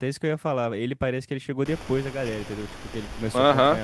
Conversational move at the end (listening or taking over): taking over